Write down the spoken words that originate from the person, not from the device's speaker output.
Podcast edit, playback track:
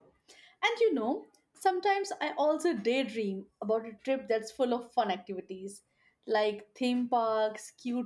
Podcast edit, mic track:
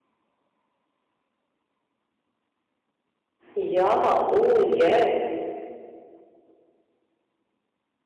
Yeah, oh yes.

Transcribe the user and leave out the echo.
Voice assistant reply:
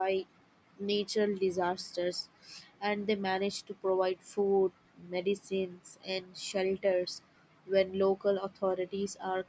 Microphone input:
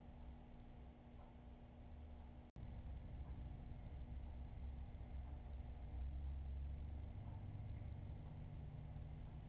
none

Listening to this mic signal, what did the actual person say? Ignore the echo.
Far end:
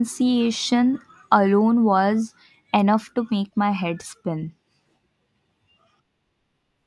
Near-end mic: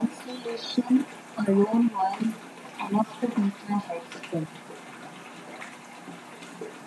none

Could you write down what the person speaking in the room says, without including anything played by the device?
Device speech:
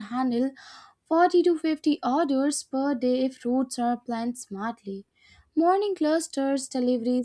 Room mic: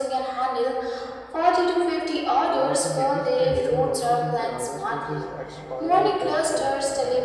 One of the biggest hidden losses in Kirana stores is expired or dead stock.

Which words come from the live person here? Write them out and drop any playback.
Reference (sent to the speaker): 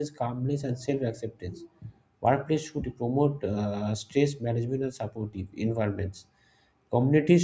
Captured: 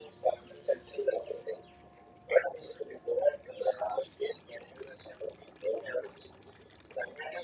none

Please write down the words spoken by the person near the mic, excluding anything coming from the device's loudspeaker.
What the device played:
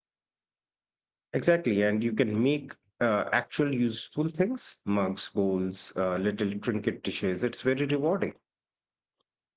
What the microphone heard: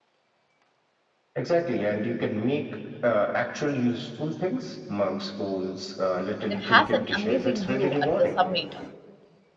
that has an amazing view at the summit.

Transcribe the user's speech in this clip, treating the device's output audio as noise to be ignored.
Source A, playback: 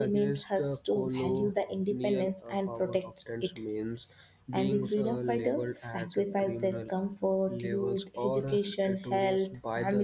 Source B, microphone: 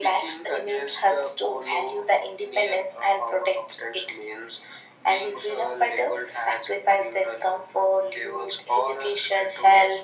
none

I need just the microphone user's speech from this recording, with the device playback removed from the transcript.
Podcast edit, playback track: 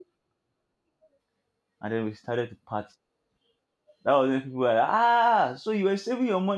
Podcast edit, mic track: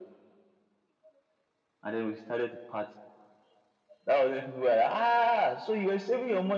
none

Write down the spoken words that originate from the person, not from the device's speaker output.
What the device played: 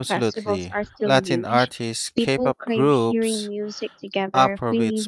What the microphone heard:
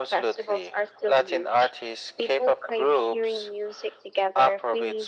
none

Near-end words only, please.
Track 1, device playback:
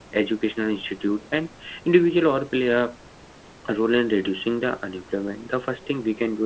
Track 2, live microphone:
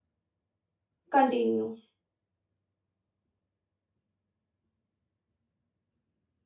continue.

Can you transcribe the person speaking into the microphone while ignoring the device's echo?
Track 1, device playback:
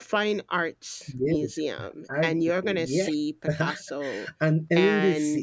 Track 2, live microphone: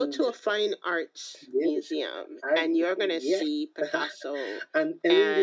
none

